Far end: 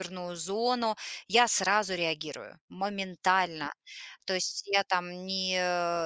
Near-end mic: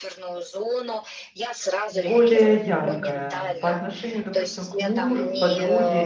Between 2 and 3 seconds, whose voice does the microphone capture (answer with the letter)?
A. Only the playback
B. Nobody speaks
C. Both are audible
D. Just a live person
C